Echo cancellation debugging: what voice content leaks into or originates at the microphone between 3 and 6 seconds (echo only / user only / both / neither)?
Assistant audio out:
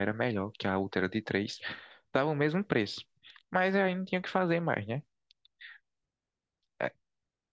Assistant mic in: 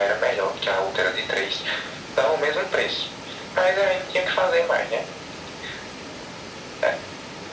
echo only